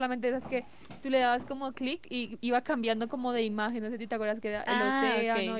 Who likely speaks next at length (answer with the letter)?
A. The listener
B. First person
A